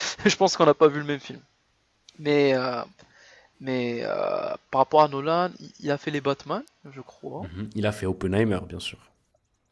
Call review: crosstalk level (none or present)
none